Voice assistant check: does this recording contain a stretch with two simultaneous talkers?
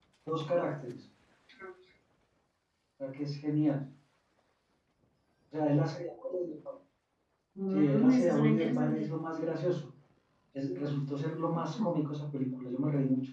Yes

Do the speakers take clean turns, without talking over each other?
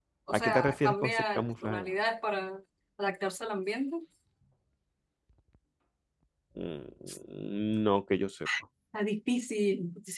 No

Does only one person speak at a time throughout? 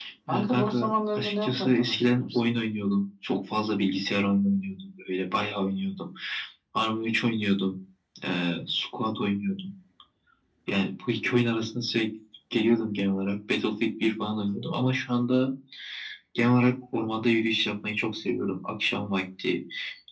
No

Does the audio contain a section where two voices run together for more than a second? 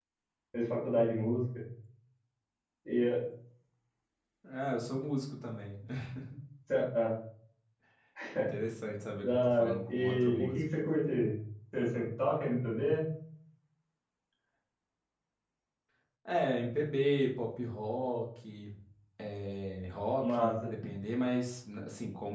Yes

